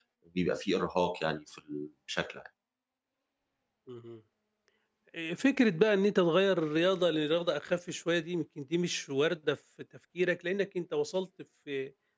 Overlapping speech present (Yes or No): No